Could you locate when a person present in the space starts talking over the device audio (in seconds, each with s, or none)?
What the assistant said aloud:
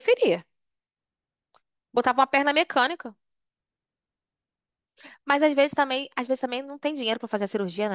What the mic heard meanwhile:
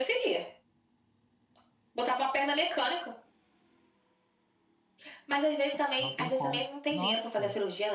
6.0 s